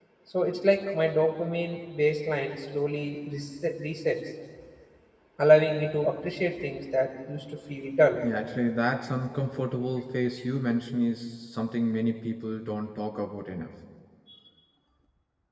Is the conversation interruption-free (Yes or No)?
Yes